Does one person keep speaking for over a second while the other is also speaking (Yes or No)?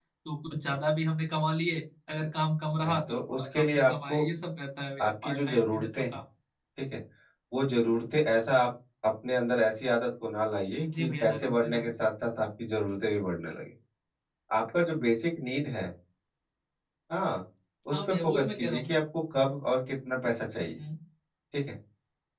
Yes